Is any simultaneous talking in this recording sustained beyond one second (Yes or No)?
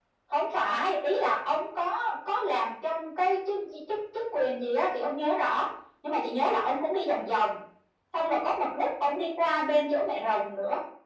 No